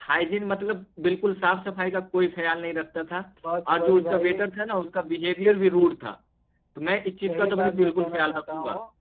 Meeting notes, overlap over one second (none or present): present